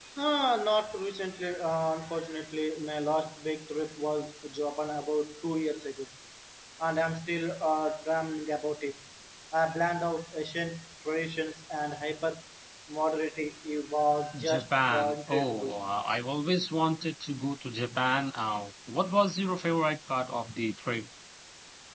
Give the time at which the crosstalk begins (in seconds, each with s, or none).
14.3 s